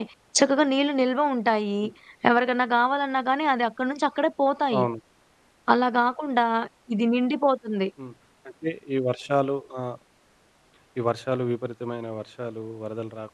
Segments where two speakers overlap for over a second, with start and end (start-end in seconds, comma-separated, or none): none